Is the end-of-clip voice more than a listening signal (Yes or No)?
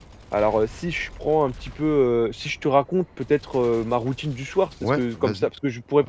No